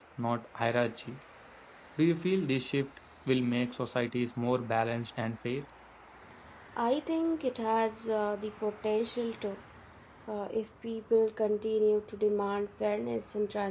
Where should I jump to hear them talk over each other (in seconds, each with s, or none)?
none